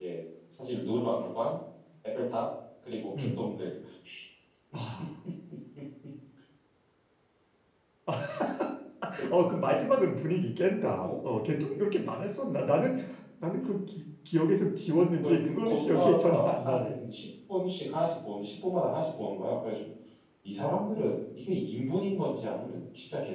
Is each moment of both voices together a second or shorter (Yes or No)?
No